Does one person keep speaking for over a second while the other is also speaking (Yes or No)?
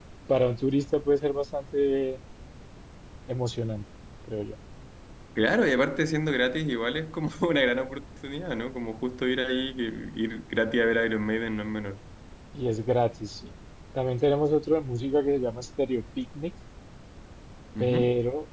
No